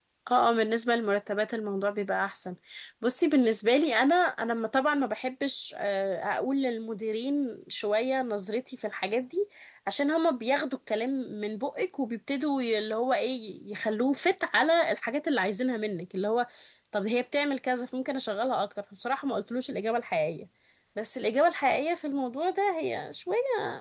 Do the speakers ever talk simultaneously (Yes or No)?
No